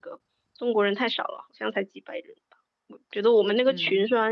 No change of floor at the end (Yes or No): Yes